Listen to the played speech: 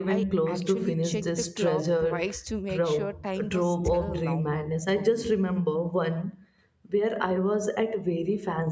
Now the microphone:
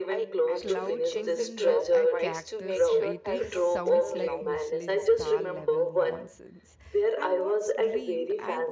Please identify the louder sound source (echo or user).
echo